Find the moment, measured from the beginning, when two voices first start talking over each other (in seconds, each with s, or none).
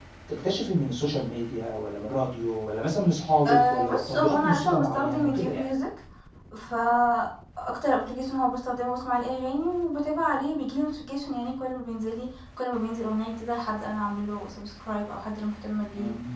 3.5 s